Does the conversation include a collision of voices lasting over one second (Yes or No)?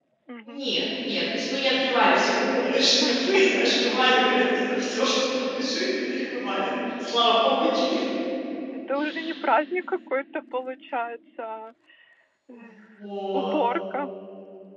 No